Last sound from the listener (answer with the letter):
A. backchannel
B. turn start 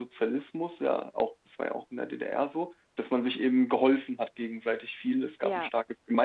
A